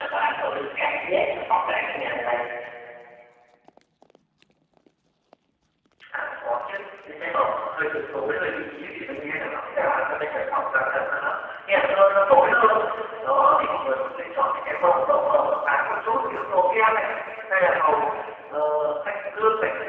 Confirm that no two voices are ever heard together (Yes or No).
Yes